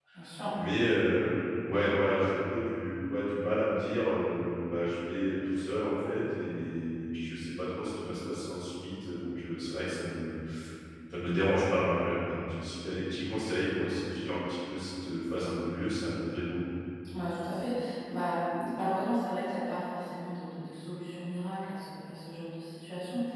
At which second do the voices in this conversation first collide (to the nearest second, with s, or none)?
none